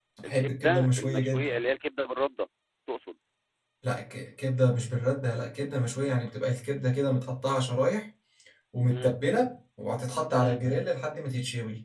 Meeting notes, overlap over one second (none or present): present